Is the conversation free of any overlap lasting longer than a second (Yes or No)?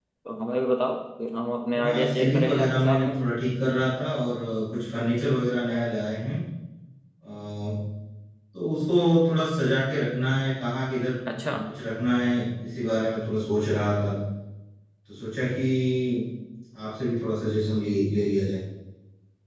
No